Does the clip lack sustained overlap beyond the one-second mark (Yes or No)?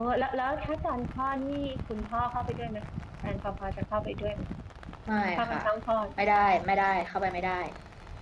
Yes